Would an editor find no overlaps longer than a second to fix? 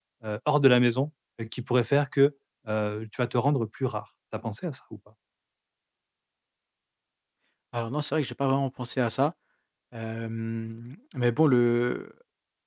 Yes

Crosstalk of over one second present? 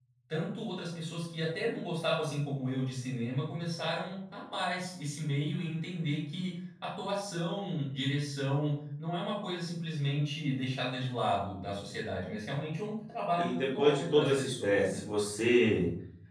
Yes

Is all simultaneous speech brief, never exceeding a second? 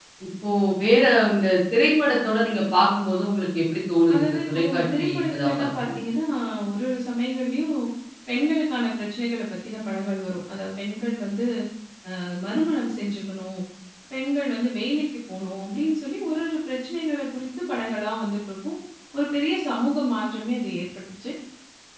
No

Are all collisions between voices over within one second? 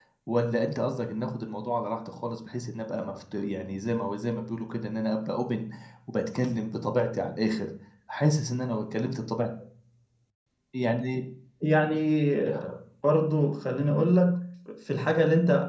Yes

